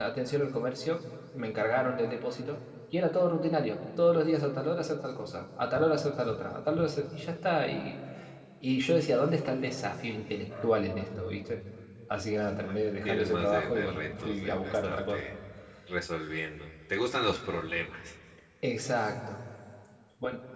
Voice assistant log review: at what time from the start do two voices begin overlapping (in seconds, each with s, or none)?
13.1 s